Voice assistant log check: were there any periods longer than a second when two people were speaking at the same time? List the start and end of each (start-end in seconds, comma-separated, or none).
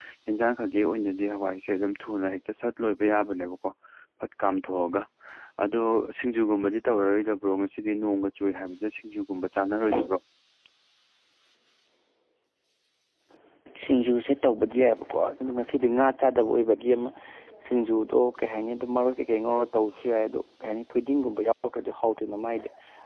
none